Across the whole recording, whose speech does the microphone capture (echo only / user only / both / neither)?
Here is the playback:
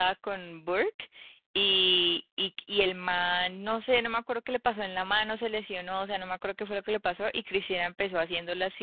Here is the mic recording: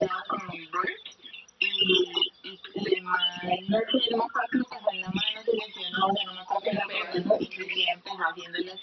both